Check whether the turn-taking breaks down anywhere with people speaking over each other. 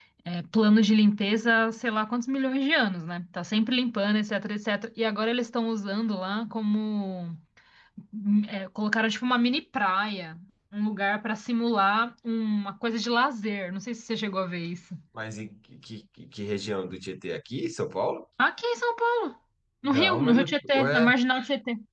Yes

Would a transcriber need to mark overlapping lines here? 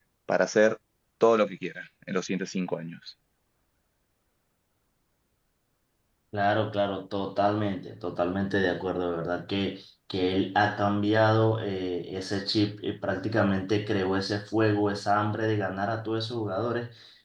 No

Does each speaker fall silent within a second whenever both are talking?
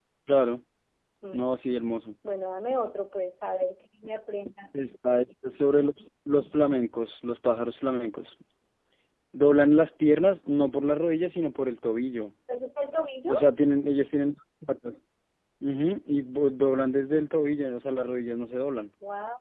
Yes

